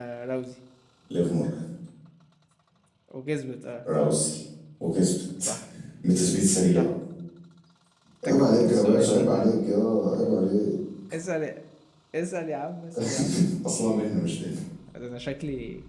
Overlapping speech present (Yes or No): Yes